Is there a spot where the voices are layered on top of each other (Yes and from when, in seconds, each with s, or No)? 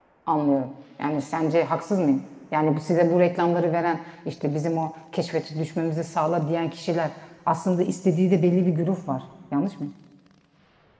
No